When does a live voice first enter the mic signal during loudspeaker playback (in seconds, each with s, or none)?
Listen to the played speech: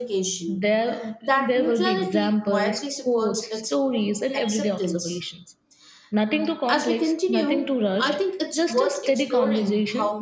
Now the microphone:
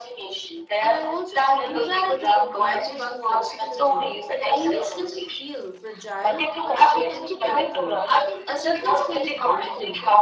0.8 s